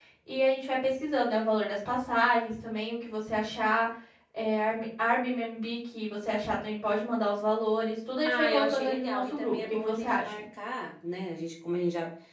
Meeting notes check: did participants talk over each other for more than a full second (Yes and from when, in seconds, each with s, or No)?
Yes, from 8.2 s